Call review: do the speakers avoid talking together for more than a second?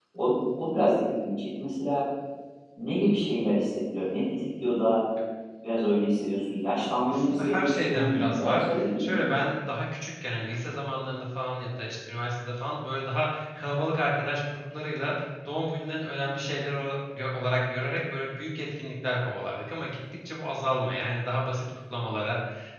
No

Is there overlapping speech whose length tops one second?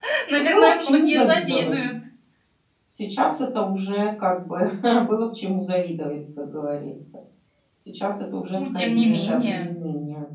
Yes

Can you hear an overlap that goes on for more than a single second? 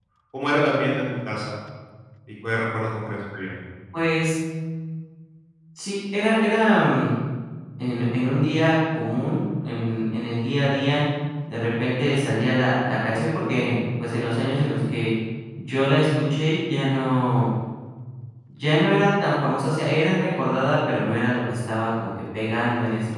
No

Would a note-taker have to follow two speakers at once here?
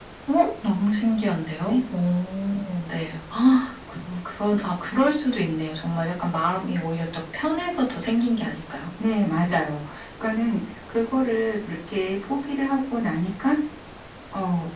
No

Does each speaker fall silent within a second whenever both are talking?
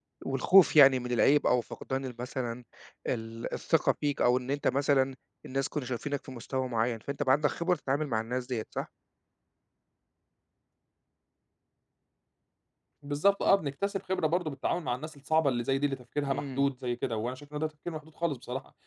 Yes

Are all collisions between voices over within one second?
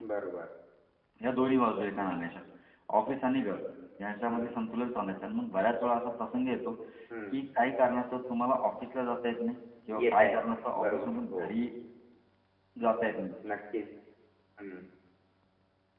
No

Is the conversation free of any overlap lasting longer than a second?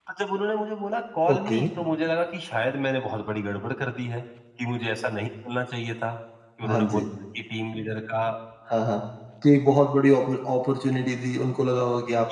Yes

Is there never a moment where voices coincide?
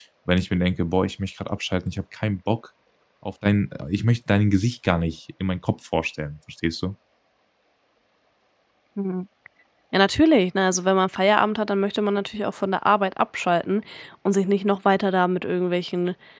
Yes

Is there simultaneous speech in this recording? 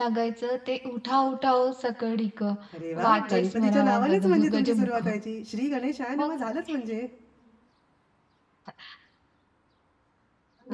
Yes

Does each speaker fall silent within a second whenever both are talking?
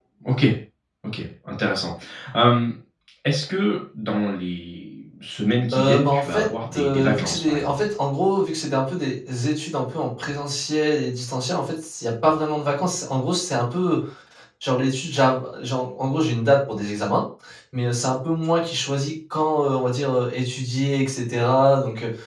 No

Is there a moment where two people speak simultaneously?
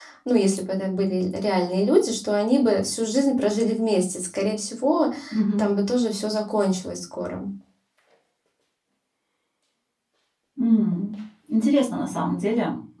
No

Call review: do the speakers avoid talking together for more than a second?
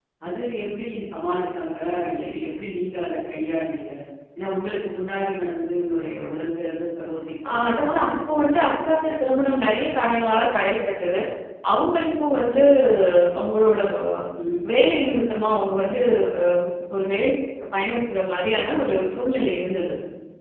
No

